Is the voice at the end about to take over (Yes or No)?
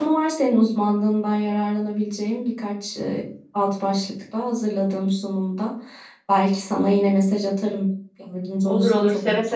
Yes